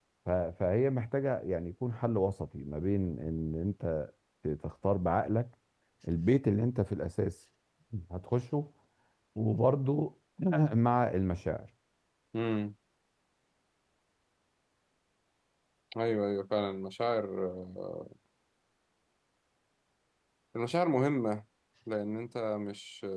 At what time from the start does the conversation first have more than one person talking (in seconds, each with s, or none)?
none